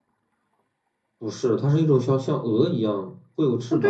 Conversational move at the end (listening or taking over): taking over